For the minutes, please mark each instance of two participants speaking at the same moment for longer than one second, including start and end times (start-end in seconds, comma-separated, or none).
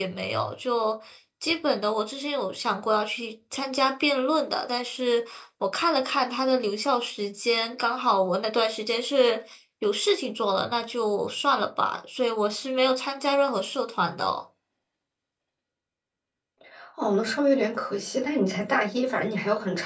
none